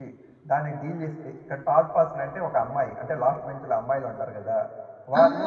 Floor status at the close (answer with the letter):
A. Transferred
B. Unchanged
A